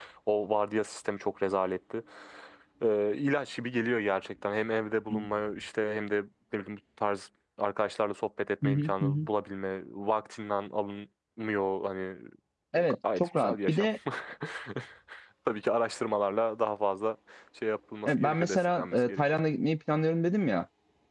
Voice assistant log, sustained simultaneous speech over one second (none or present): present